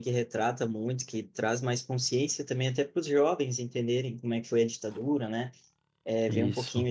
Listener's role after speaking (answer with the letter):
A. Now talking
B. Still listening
B